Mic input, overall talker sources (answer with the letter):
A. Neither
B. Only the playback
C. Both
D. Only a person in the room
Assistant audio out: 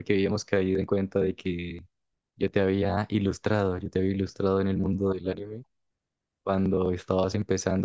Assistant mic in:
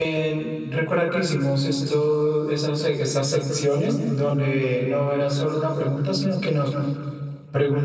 D